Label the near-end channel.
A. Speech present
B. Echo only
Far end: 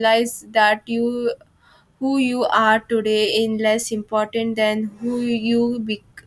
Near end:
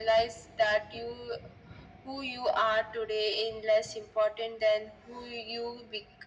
B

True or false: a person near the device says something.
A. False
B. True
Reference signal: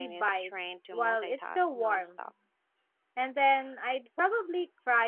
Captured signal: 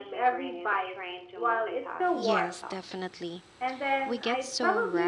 B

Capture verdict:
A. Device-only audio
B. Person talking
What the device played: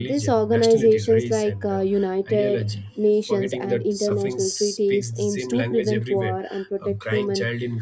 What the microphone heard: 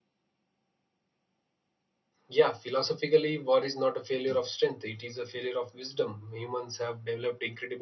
B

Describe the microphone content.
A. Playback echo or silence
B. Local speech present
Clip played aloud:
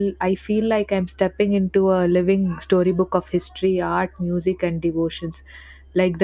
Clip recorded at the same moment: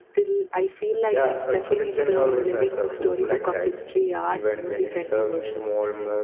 B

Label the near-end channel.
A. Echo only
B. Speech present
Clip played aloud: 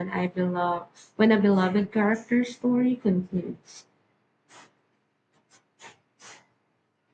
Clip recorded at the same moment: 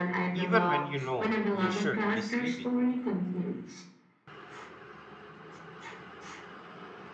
B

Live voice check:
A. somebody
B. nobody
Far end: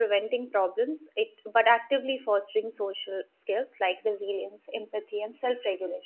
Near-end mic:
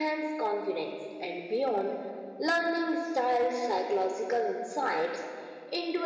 A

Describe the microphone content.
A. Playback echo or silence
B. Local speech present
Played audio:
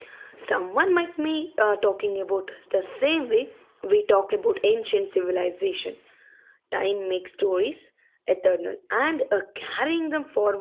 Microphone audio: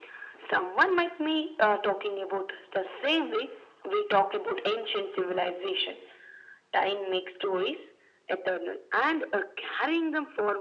A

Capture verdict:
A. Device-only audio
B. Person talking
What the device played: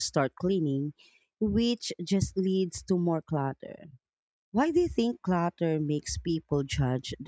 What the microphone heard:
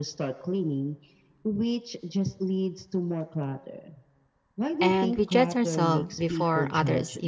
B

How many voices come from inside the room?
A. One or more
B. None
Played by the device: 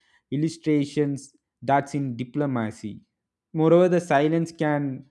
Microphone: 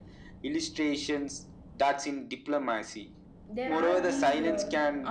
A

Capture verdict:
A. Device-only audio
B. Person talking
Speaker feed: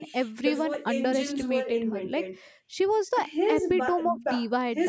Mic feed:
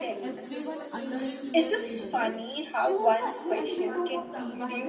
B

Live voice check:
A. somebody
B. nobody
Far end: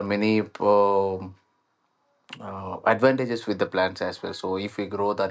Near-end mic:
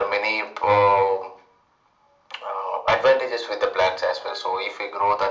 B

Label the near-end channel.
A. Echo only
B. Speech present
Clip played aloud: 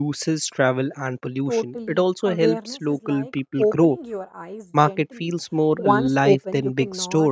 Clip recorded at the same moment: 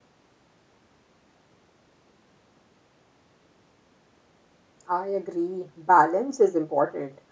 B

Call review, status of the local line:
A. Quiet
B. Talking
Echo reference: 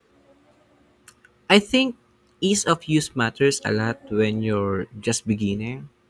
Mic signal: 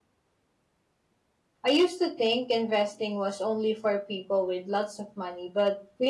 B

